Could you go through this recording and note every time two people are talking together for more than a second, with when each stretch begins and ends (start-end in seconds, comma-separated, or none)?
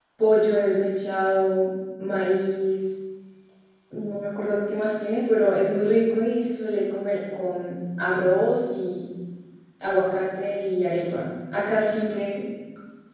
none